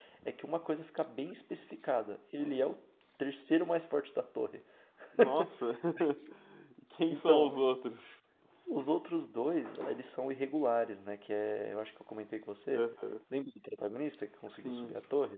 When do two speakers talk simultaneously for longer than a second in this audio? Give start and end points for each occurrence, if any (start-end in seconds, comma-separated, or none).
none